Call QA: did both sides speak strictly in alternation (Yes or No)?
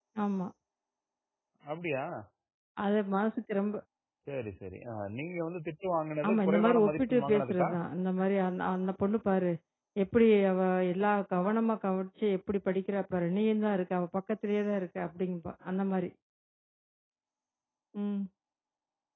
No